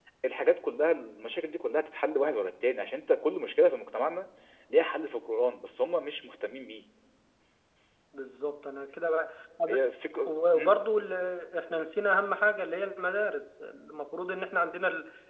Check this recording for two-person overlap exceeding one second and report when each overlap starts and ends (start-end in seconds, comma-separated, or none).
none